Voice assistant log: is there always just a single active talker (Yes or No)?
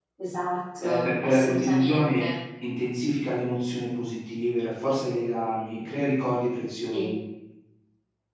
No